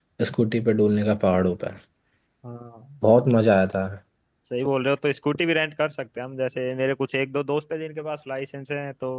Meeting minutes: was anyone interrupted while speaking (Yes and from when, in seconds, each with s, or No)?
No